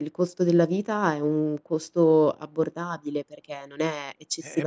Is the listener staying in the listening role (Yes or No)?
No